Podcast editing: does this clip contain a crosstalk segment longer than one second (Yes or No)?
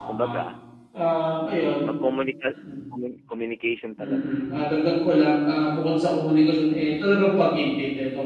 No